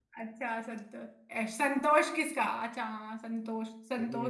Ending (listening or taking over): listening